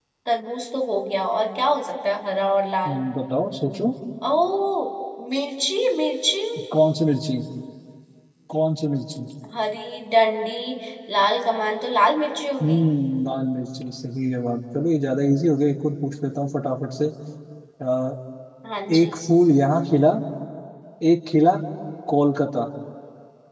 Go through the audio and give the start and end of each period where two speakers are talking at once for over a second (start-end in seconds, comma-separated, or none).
none